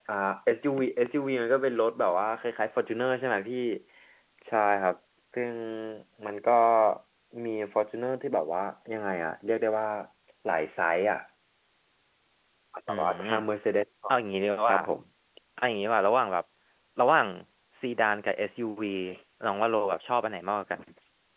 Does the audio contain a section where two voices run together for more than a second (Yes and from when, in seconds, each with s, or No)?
No